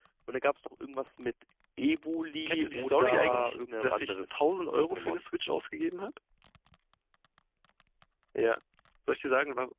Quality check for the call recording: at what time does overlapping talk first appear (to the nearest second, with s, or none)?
2 s